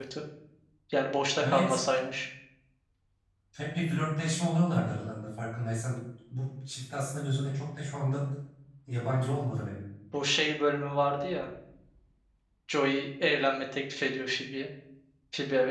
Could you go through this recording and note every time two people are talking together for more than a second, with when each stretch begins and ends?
none

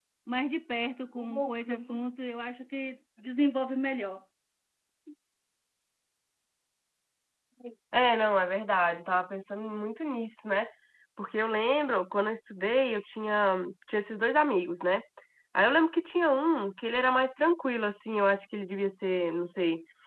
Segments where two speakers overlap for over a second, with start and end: none

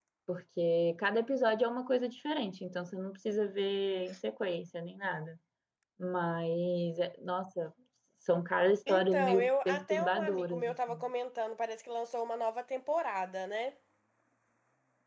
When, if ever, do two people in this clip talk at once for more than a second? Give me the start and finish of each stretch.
8.9-11.0

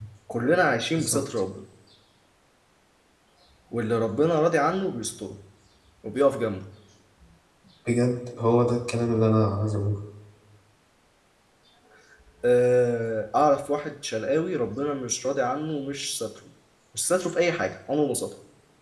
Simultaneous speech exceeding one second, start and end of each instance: none

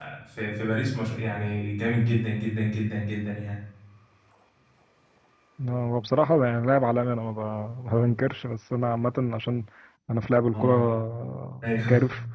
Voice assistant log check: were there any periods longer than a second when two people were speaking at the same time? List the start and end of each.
none

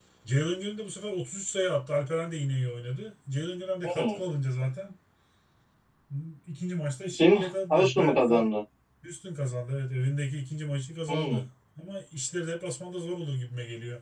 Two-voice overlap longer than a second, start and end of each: 7.1-8.5

